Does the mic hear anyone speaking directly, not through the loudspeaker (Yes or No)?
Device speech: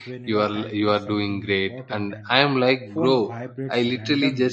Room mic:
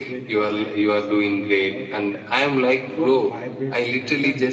No